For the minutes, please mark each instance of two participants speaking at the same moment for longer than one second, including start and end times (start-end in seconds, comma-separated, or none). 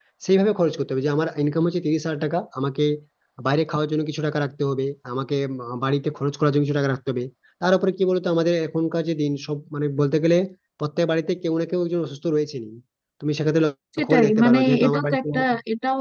14.0-15.2